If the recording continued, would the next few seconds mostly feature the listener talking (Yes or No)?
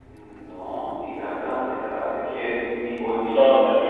Yes